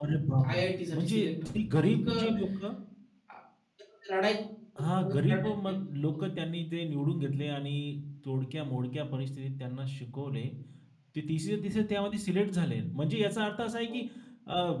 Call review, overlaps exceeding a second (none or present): present